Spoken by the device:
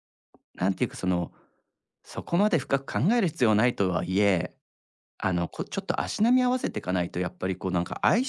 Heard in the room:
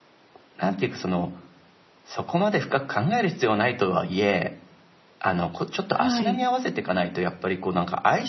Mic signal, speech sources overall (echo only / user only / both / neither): both